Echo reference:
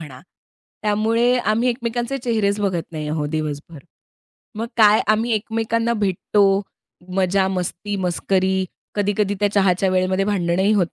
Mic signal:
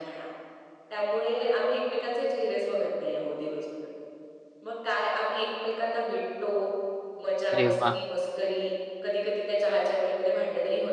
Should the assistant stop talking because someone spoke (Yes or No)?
Yes